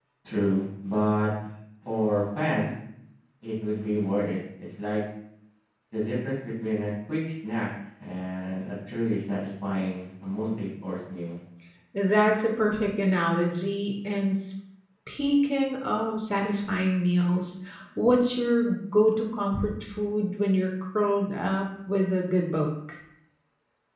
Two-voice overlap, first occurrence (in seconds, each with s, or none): none